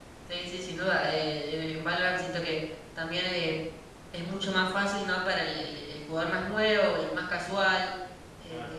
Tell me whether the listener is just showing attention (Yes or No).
Yes